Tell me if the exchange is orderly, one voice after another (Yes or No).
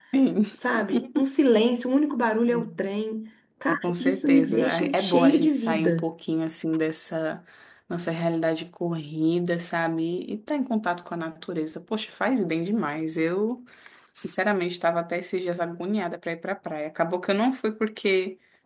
No